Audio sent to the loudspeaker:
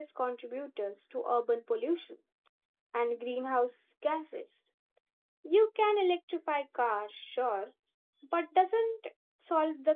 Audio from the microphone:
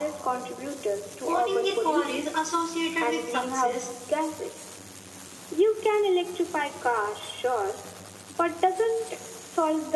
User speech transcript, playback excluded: owning a car is associated with success

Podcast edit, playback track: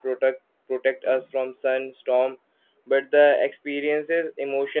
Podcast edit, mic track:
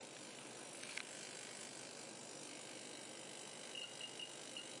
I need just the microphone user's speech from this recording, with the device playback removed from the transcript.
none

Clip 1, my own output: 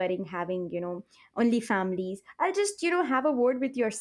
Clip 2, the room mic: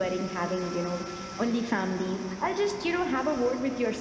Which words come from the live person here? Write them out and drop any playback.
none

